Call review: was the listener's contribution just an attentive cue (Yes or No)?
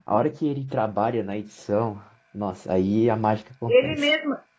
No